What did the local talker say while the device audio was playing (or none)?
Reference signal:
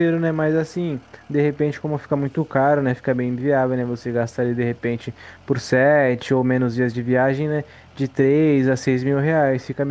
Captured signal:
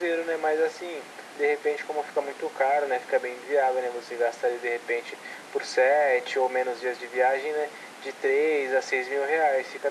none